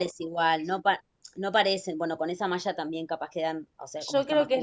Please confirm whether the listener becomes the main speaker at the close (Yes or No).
Yes